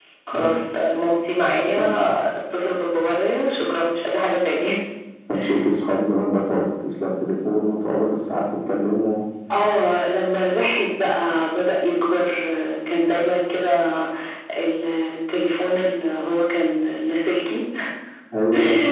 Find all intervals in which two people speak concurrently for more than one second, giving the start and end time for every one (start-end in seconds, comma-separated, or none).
none